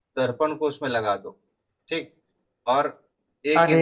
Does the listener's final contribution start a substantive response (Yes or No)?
Yes